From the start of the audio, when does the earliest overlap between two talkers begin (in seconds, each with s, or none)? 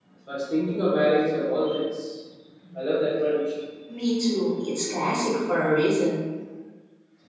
none